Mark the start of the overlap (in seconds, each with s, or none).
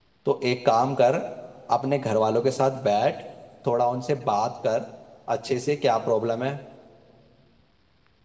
none